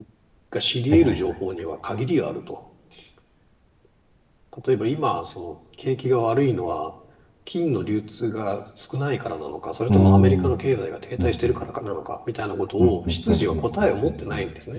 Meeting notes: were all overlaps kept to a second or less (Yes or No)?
No